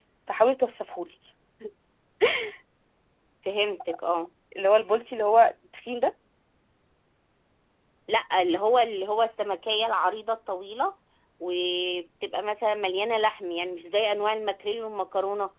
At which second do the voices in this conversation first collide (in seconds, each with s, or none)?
none